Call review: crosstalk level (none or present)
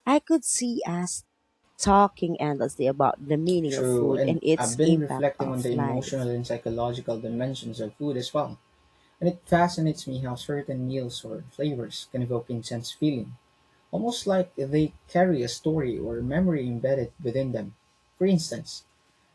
present